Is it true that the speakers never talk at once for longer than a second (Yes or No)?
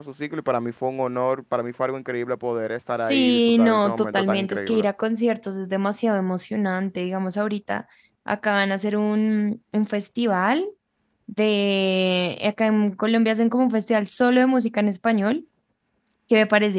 No